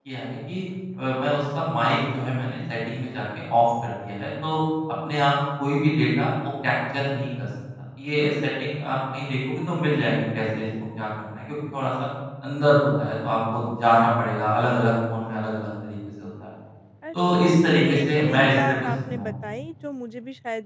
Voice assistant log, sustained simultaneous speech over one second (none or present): present